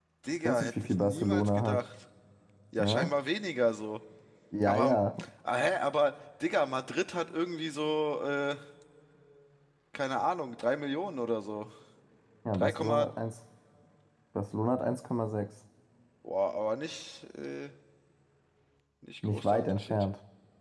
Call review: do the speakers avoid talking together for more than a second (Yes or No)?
No